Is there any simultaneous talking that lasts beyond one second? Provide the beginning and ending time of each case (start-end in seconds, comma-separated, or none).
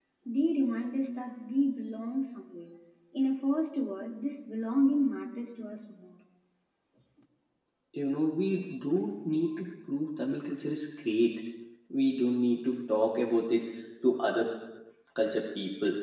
none